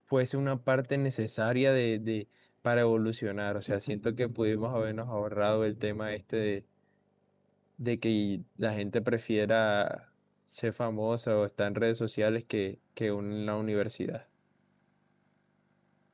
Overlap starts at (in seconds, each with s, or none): none